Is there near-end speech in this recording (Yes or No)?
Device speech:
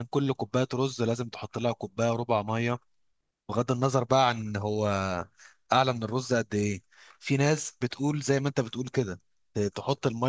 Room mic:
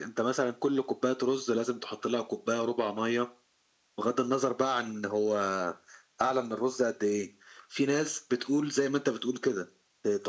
No